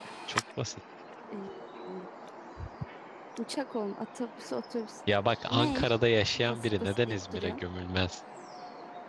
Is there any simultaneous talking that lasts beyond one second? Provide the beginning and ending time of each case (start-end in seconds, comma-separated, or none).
6.4-7.6